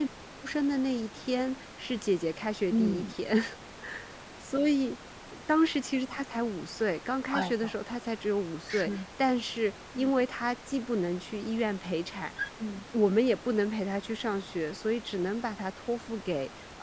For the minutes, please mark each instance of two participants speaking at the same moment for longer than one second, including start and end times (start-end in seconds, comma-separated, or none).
none